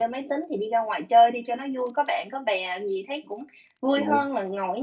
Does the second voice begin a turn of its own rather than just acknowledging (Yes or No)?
No